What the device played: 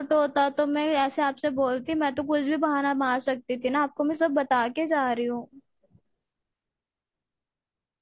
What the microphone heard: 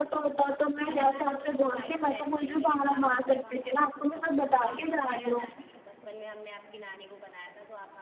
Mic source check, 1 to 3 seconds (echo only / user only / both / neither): both